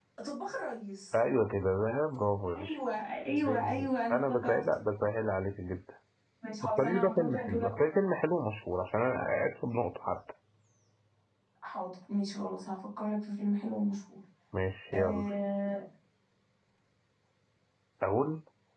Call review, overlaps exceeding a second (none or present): present